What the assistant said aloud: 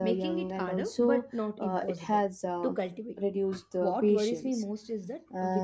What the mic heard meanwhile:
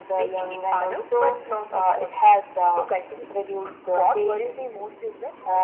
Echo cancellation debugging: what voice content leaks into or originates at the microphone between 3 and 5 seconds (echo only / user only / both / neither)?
echo only